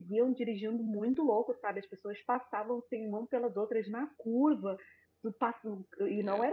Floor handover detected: No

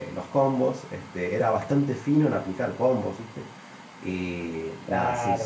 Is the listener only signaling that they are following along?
Yes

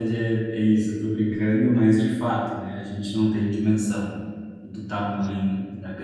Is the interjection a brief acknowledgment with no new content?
Yes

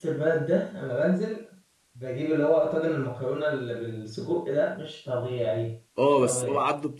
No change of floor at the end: No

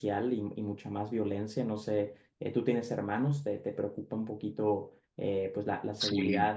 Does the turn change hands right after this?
No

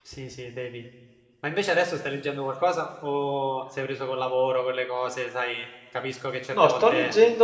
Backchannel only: No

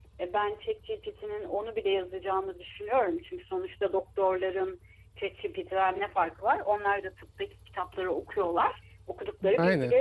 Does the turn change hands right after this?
No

